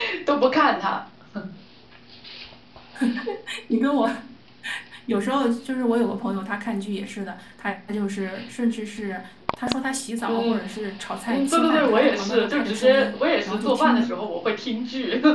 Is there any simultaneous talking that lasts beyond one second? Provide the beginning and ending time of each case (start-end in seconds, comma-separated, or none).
11.3-14.1